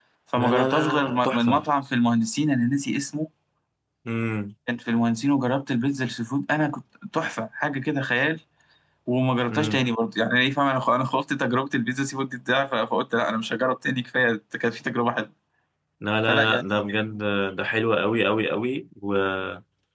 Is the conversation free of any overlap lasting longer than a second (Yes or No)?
No